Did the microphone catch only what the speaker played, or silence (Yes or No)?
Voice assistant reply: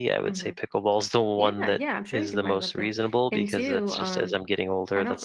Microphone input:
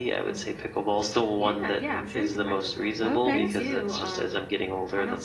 No